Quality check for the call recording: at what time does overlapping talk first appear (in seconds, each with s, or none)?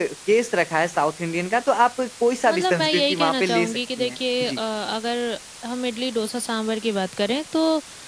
2.5 s